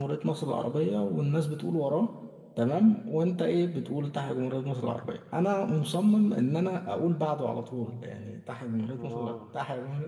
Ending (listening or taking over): listening